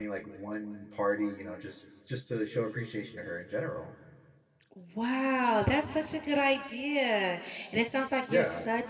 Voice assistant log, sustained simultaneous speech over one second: none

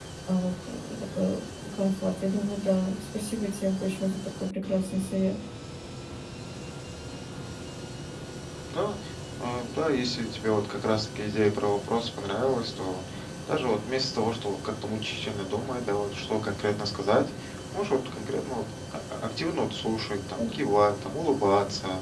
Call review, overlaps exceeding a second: none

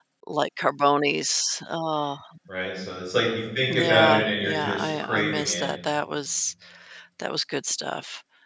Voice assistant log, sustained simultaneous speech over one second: present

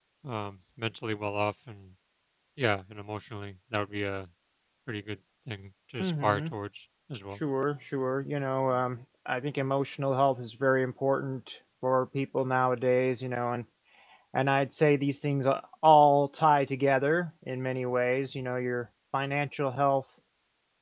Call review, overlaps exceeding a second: none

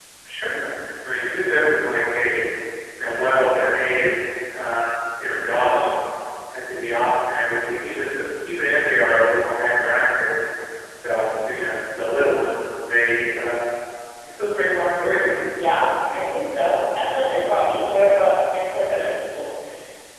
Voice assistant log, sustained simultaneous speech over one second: none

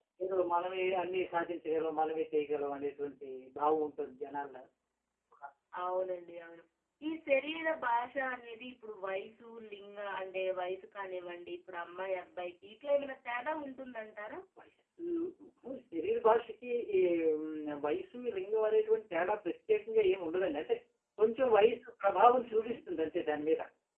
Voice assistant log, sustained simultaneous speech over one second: none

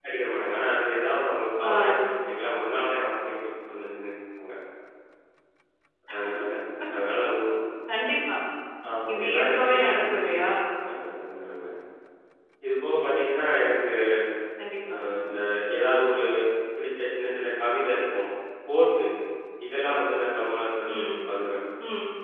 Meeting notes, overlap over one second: present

